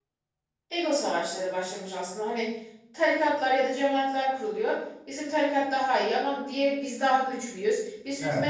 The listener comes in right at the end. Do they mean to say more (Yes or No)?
No